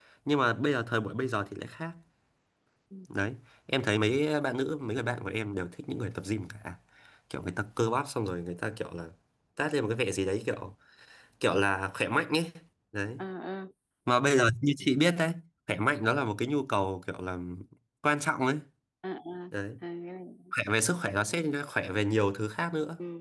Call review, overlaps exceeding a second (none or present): none